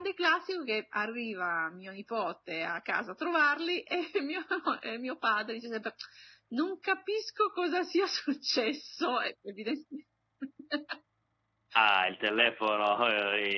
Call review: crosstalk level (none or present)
none